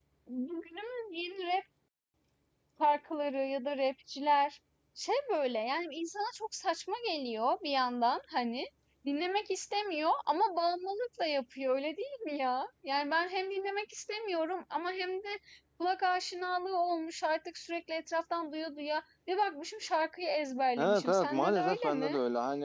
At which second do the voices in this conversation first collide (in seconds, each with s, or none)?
20.8 s